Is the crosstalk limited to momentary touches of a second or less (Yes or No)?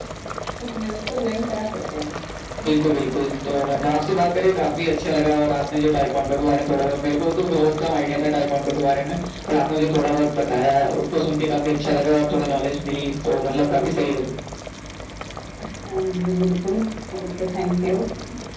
Yes